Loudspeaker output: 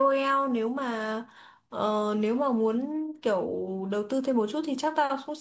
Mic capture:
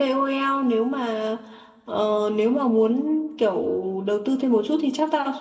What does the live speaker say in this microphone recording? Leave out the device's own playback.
none

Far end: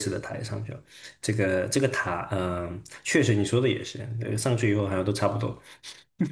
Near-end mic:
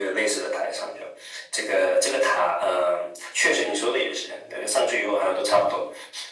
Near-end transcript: none

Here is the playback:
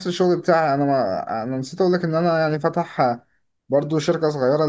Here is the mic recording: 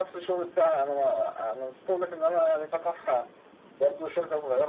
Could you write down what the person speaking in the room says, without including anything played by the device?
none

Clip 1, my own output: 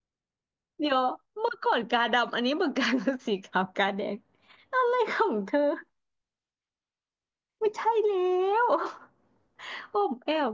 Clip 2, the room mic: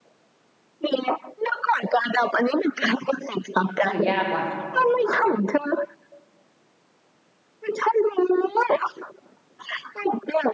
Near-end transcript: เออยากว่ะ

